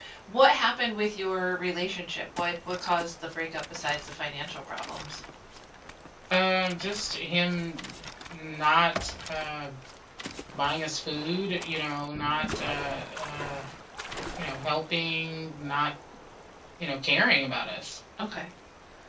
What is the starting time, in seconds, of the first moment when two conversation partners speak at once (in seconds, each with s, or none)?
none